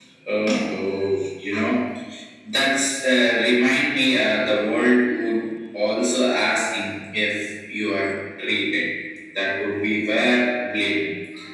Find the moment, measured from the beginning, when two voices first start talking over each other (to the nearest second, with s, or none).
none